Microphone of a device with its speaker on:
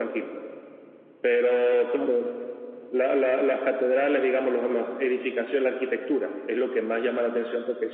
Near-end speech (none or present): none